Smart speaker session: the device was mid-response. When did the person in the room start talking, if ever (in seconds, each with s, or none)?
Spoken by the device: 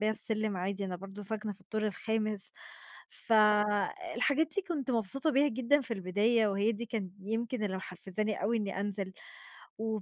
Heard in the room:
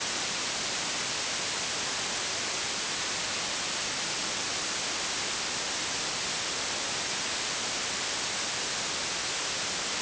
none